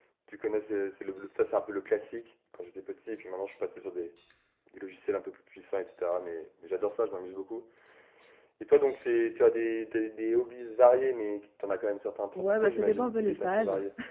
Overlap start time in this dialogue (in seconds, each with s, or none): 12.3 s